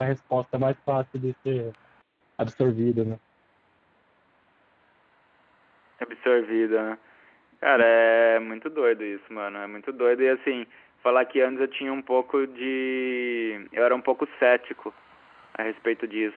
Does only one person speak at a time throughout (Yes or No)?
Yes